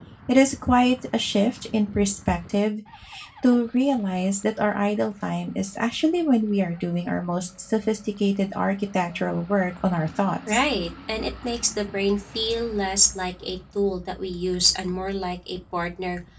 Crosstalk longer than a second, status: none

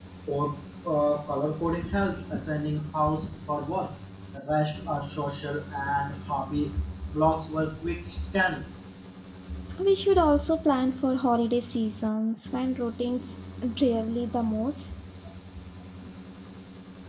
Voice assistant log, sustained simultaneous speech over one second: none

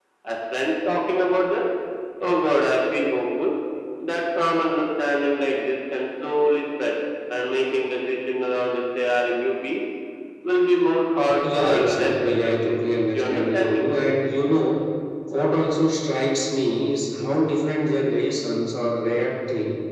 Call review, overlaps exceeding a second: present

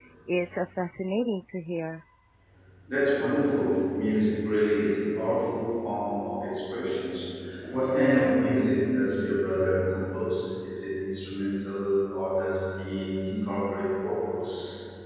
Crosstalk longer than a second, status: none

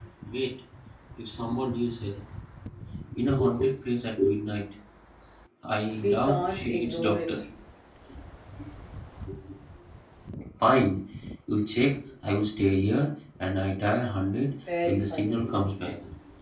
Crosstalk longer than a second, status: present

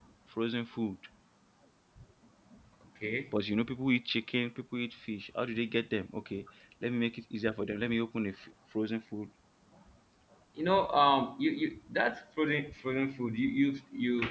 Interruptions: none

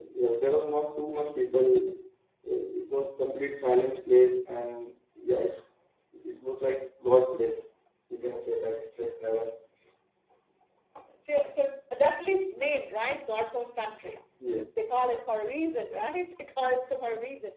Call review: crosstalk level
none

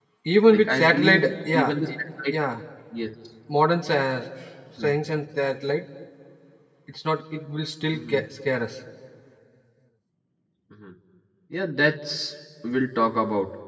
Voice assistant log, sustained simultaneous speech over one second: present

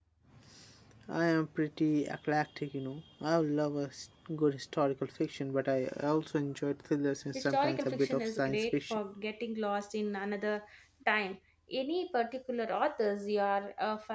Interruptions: present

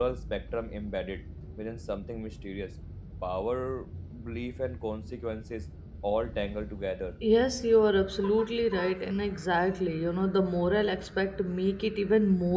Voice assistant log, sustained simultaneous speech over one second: none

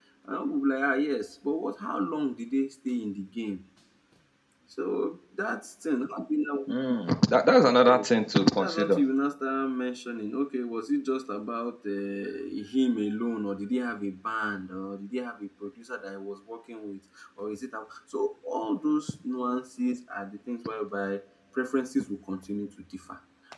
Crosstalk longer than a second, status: none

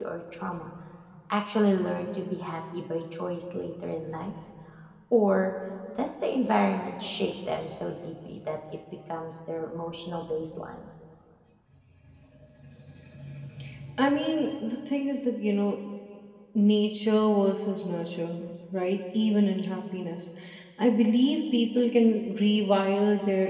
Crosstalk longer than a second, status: none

